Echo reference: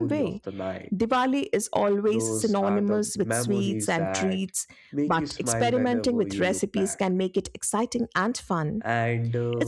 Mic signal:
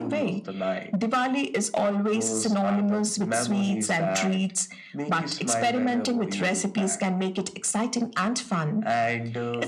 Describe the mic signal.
echo only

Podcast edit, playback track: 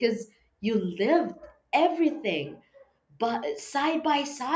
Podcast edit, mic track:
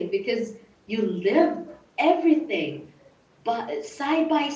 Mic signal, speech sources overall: echo only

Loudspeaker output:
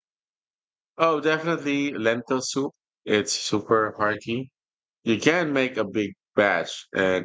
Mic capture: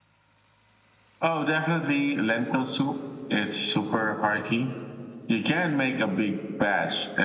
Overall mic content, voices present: echo only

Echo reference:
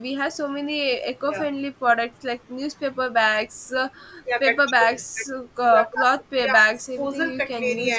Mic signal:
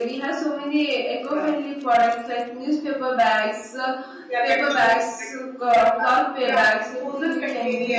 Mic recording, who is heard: echo only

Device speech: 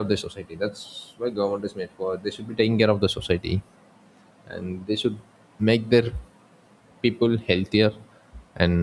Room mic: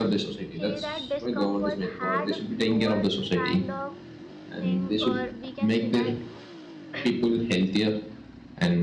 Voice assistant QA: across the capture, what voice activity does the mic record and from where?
both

